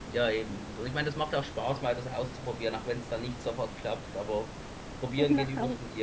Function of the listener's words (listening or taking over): listening